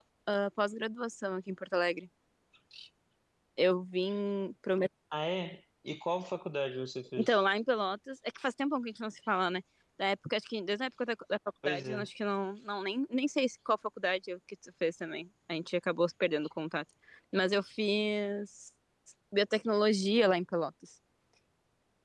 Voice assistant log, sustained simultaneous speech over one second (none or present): none